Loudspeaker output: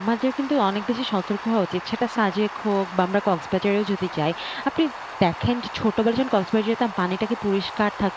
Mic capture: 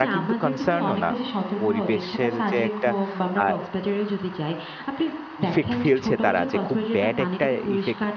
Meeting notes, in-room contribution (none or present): present